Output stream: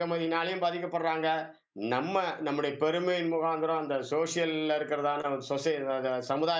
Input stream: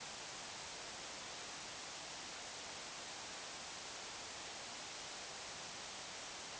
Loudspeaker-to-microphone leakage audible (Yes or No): No